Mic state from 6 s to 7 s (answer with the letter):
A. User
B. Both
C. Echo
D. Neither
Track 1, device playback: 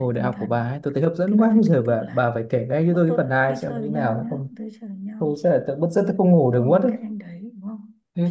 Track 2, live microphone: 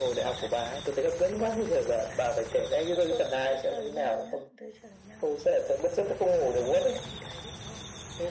C